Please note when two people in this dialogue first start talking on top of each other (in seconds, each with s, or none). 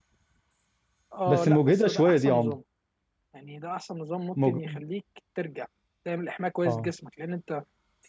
1.3 s